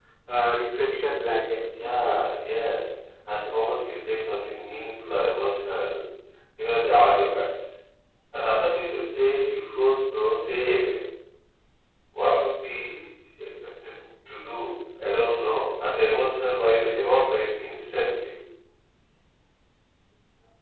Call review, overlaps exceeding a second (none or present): none